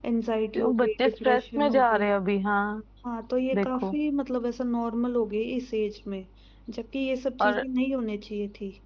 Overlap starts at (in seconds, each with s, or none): 0.6 s